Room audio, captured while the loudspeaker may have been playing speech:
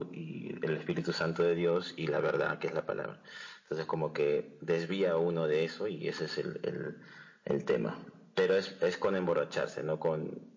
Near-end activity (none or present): none